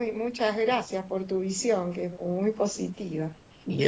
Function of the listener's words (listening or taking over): listening